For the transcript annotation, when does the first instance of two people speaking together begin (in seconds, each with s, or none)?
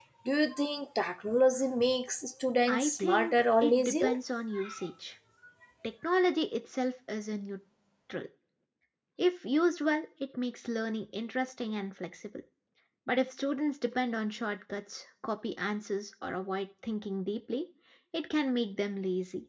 2.7 s